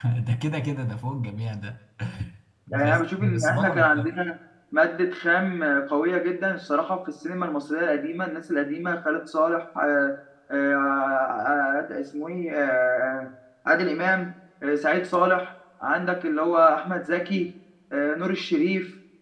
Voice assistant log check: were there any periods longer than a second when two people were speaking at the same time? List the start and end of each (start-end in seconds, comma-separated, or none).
2.7-4.1